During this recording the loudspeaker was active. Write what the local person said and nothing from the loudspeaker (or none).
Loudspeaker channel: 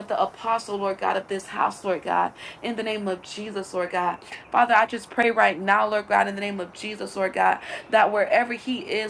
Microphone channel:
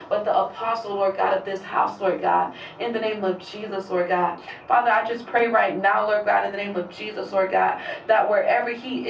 none